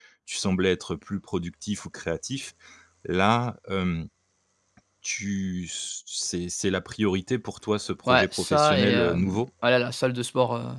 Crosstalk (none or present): present